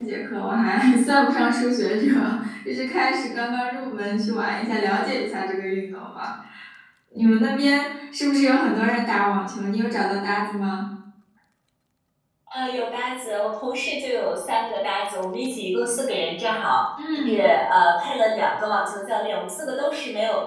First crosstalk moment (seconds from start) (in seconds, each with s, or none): none